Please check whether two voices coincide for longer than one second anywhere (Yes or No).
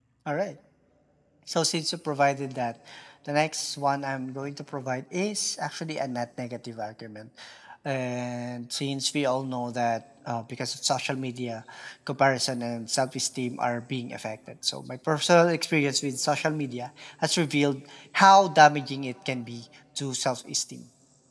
No